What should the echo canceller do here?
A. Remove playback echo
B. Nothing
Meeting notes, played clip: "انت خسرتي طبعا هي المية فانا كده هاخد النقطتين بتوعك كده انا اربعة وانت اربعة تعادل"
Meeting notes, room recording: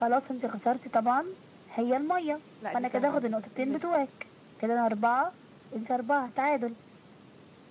A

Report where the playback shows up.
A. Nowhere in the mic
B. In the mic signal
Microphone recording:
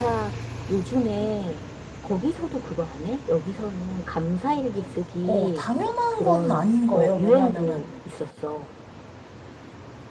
B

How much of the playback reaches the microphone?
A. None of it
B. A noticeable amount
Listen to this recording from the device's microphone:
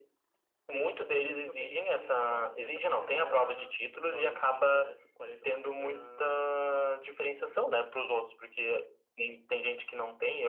B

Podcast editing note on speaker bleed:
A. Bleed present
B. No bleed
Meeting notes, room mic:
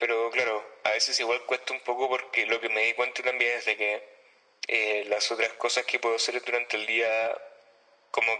A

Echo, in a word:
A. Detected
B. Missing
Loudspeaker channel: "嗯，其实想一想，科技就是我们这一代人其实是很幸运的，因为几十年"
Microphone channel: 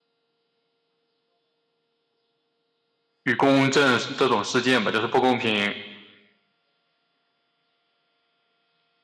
B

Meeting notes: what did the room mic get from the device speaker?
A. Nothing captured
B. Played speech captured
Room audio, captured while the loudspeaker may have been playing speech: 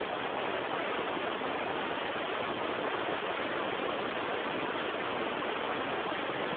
A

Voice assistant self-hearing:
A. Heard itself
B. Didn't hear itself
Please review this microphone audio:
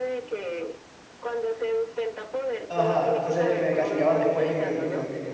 A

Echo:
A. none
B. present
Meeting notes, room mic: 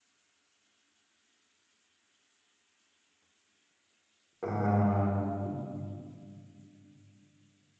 A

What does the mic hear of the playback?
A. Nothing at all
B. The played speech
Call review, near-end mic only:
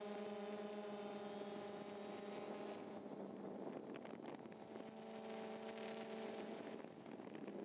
A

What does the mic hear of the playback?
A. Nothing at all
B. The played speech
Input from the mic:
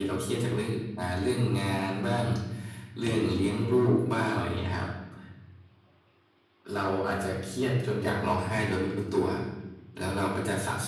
A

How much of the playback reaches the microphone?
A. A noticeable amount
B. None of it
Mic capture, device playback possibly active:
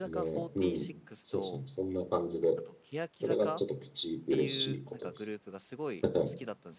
A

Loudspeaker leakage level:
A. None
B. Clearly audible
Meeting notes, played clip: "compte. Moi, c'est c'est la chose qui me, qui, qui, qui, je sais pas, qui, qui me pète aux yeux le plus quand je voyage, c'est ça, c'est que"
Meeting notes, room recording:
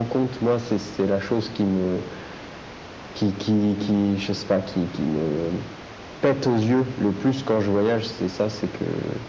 B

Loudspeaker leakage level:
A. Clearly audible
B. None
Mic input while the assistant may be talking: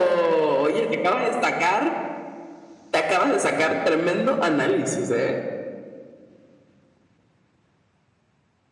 A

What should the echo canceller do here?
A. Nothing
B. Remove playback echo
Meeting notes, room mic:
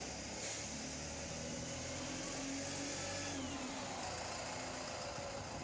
A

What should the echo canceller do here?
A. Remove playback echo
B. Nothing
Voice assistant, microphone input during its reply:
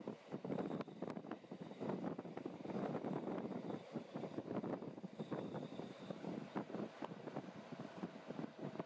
B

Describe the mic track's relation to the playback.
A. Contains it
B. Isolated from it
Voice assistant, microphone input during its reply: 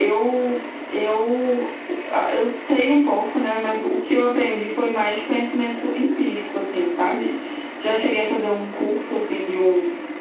A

